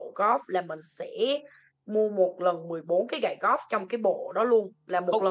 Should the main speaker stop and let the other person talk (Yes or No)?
Yes